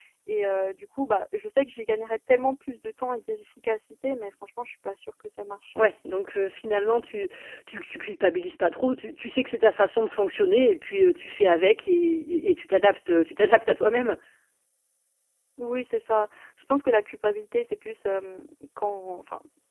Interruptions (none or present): none